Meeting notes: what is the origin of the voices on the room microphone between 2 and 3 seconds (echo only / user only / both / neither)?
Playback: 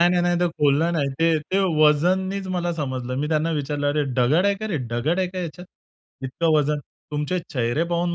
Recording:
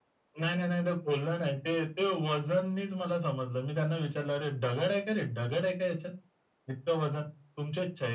echo only